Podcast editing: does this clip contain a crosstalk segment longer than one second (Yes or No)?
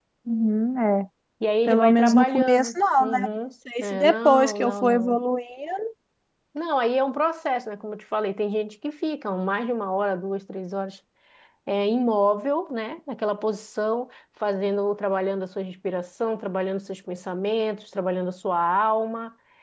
Yes